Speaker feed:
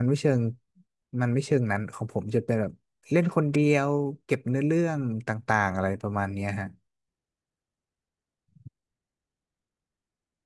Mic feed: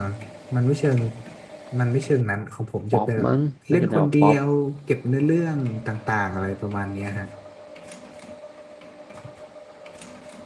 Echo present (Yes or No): Yes